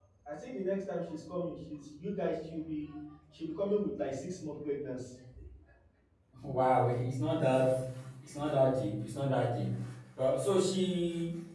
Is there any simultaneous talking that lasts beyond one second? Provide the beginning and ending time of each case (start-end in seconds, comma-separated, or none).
none